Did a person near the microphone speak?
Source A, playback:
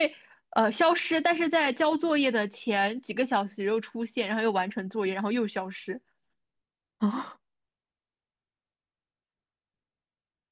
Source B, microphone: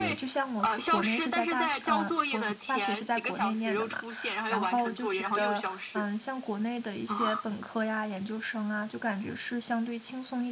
Yes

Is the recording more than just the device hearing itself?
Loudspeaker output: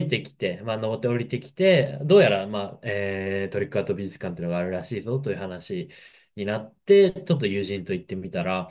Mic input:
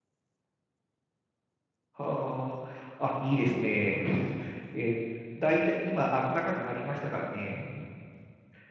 Yes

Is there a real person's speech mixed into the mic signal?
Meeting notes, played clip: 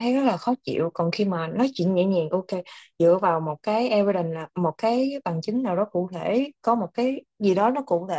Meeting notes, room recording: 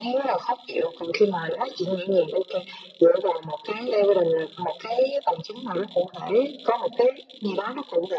No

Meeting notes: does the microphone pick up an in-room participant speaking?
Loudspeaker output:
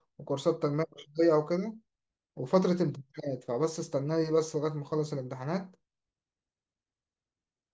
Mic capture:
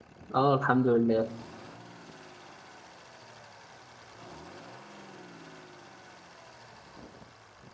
Yes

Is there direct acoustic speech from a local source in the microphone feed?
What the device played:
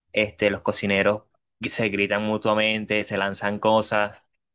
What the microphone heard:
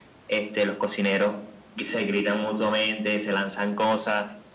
No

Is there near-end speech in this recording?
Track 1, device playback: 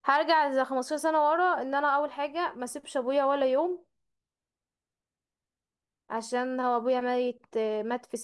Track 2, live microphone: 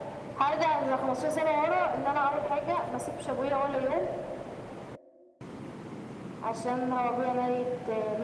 No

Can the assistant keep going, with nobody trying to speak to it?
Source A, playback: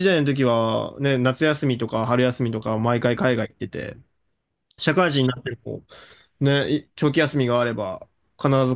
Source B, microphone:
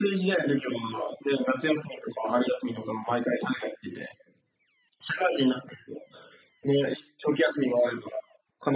Yes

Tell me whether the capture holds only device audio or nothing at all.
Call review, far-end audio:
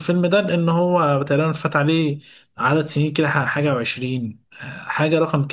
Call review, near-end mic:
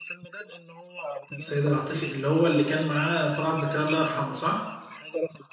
No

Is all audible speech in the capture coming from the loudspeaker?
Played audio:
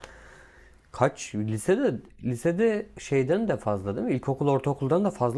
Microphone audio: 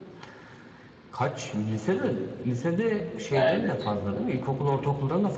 No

